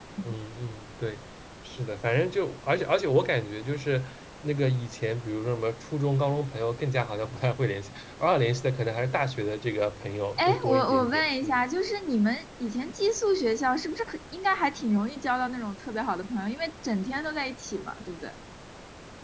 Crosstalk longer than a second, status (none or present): present